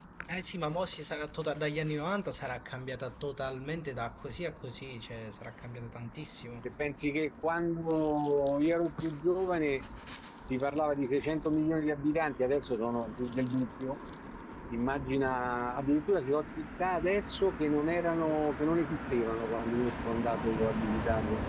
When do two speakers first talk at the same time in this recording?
none

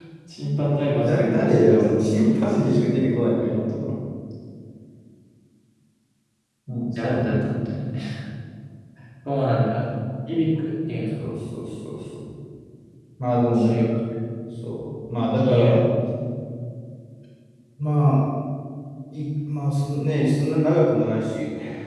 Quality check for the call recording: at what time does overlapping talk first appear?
1.0 s

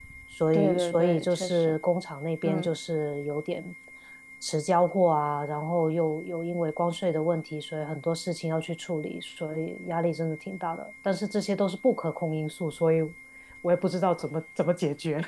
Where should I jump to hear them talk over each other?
0.5 s

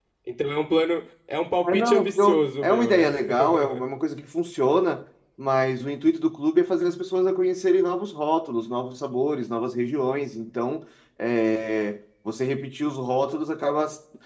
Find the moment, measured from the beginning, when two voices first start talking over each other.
1.6 s

